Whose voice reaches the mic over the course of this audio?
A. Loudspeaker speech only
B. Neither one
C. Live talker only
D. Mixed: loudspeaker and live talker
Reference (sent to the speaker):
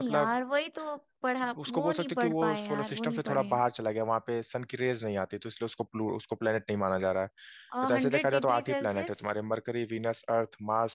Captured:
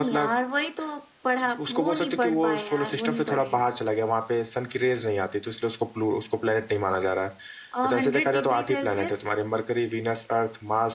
A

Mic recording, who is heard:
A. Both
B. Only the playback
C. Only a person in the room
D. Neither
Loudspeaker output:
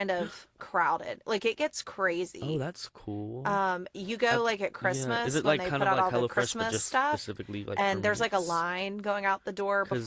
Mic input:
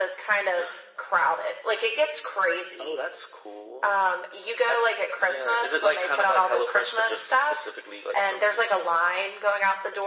B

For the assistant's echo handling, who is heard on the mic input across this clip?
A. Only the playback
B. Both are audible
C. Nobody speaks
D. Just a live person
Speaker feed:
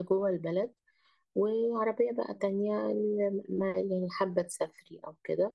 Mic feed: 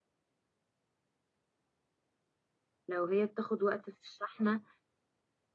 D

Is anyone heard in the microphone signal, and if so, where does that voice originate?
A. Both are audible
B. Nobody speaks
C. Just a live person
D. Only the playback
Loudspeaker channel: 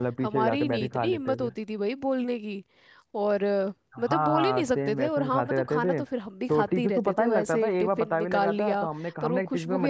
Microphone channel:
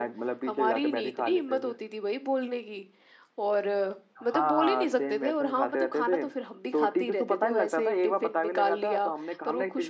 D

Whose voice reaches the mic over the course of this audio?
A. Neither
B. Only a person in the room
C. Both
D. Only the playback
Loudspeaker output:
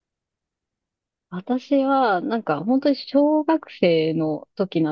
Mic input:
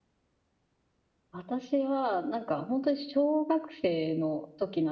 D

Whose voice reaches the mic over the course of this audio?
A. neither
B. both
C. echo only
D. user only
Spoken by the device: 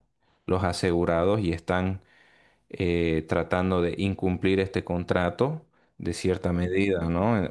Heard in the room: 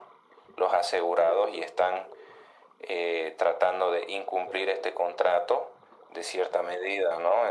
C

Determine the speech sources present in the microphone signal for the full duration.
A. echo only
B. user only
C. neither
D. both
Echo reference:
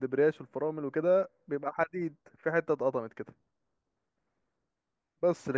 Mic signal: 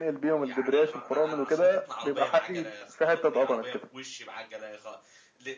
D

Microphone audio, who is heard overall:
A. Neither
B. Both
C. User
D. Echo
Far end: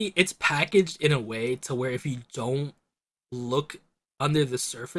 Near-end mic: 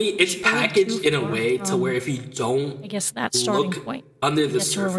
B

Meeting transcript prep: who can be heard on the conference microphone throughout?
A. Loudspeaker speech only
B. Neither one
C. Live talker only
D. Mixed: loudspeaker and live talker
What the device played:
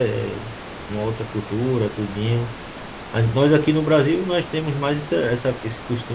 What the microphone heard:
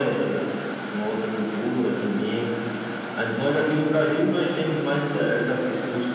A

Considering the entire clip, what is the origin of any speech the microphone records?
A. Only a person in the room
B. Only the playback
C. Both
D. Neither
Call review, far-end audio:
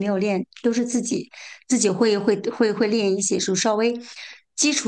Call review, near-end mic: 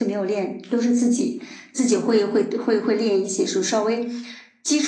B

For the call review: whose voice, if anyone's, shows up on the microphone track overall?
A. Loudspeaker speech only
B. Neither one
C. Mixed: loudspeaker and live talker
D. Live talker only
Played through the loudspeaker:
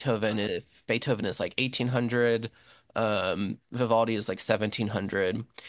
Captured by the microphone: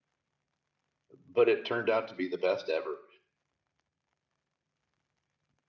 D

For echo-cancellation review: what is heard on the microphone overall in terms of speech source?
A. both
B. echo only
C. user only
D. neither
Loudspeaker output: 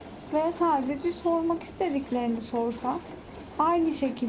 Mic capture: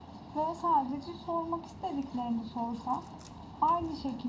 B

